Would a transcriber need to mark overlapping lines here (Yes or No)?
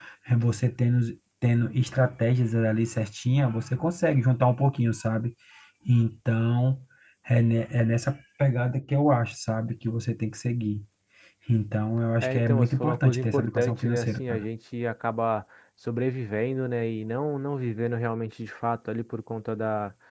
Yes